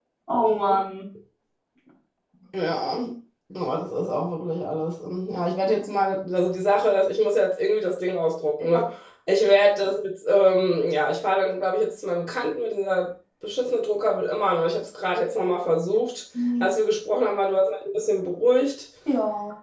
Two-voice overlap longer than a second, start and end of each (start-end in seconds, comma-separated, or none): none